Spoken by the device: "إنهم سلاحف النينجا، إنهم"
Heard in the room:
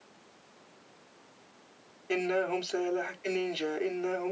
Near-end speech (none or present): none